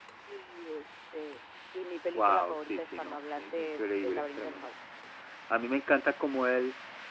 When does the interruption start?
2.1 s

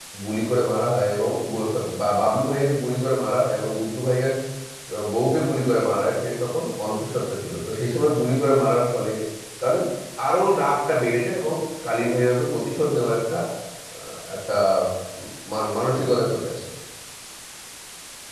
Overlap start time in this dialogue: none

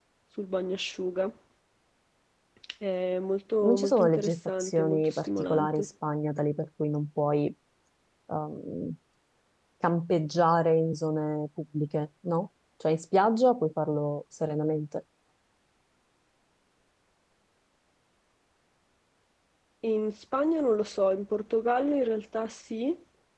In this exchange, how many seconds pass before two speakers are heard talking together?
3.6 s

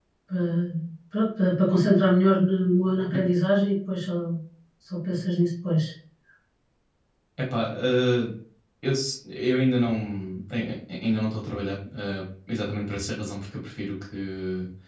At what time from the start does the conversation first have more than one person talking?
none

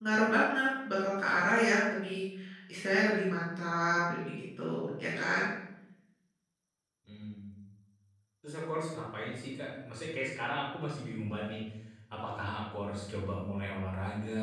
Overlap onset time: none

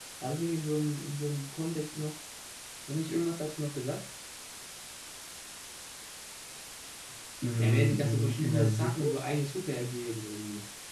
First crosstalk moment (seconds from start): 7.6 s

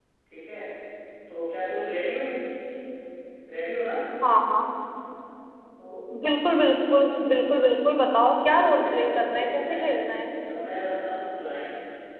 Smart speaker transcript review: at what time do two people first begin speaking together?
8.3 s

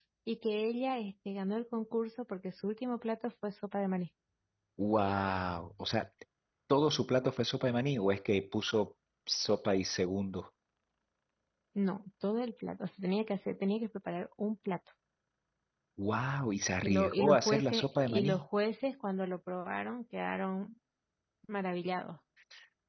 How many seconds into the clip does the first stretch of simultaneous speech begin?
16.8 s

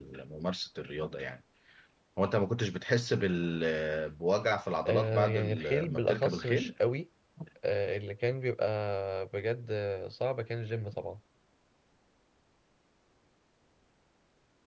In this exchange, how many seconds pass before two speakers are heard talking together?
4.8 s

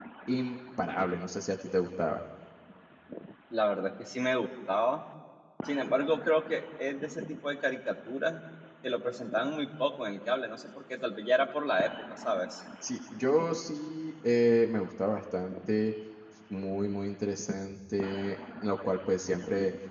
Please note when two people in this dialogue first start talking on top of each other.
none

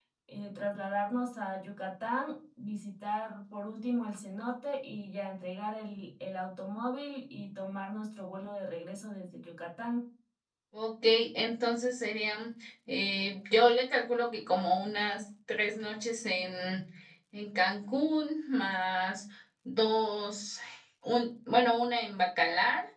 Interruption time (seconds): none

